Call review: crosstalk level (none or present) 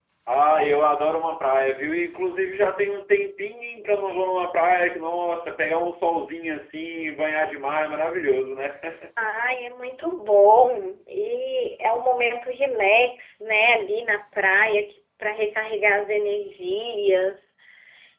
none